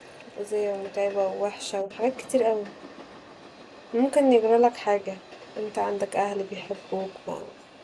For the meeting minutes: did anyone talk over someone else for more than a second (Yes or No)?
No